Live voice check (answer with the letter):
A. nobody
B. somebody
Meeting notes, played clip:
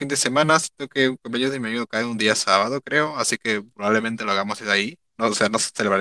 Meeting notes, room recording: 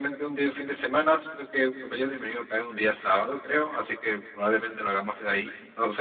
A